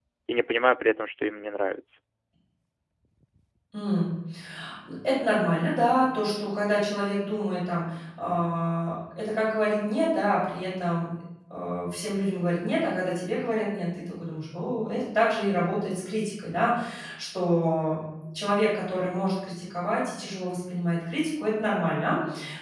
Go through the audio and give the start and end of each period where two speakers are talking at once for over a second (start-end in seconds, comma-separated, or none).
none